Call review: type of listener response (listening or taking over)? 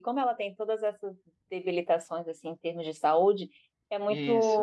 listening